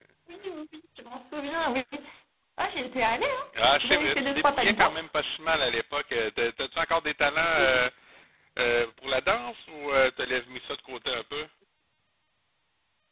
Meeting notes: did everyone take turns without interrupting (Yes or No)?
No